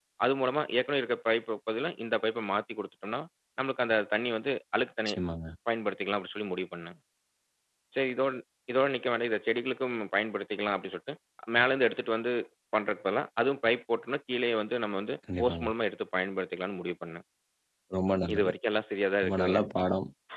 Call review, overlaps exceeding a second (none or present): none